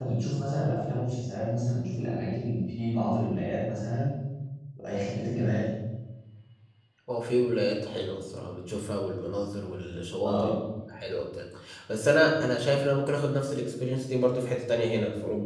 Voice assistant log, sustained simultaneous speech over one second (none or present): none